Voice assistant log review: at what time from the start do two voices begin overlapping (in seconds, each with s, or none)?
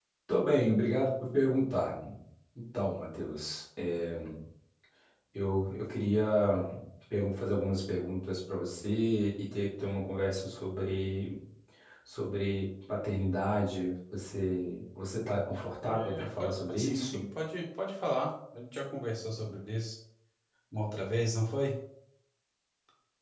15.8 s